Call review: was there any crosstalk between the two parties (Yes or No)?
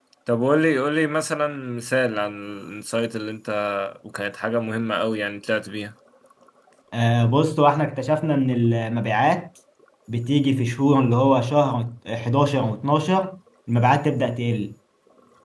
No